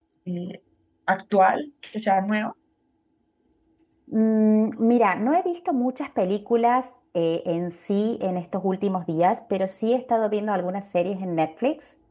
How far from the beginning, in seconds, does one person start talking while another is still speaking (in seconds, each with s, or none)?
none